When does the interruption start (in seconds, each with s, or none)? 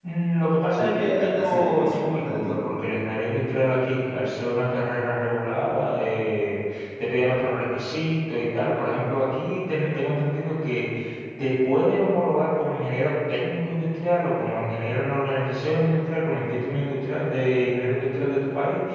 0.8 s